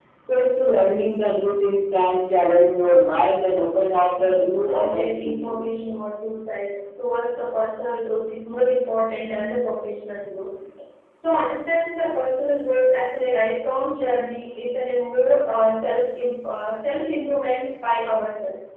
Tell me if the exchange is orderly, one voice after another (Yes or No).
No